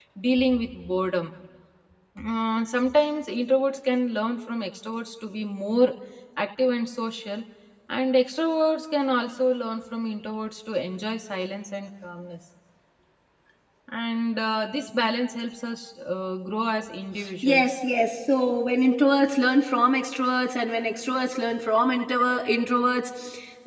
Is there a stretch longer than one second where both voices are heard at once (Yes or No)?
No